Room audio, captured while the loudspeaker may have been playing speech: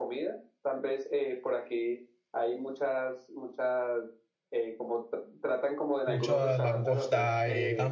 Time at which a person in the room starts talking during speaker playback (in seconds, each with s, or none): 6.0 s